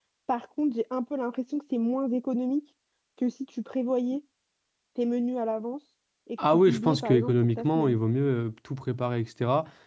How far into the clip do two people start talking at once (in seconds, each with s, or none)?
6.4 s